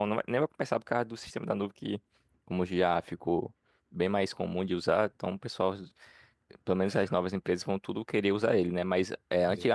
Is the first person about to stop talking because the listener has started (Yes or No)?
No